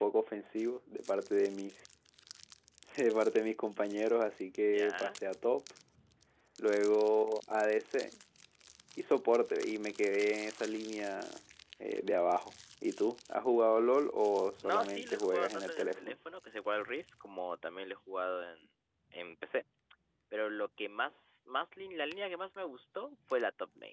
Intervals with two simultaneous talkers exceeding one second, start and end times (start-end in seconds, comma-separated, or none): 14.6-16.2